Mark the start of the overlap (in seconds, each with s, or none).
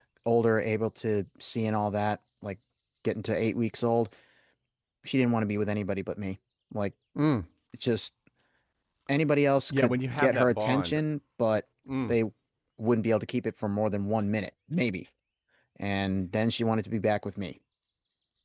9.7 s